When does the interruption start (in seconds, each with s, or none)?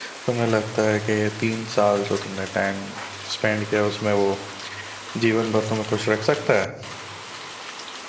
none